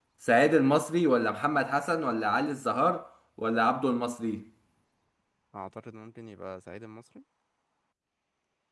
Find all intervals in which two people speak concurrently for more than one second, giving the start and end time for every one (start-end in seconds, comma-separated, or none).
none